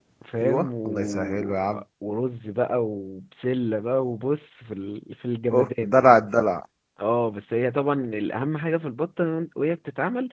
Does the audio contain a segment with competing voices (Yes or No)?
Yes